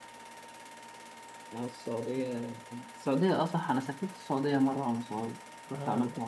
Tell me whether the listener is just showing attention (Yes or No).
No